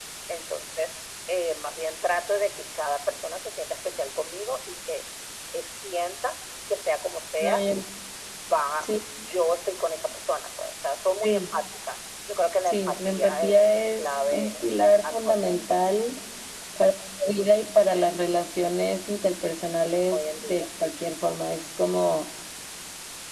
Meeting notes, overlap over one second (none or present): present